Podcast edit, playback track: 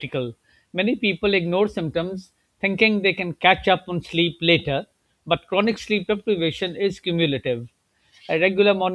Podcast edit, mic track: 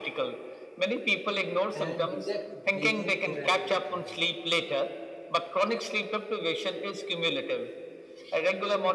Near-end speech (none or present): present